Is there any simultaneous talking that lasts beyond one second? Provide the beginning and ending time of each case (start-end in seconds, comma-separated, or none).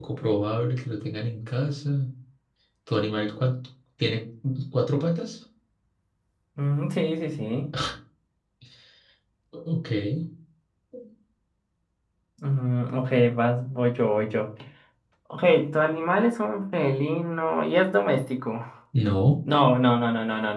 none